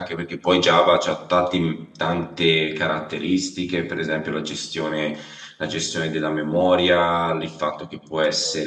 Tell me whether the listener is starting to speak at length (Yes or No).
No